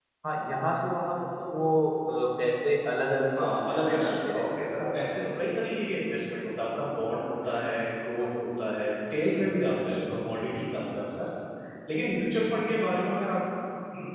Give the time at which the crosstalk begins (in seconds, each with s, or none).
3.4 s